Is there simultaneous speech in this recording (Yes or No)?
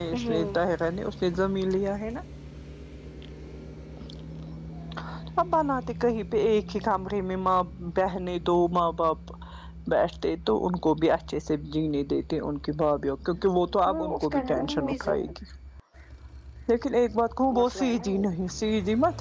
Yes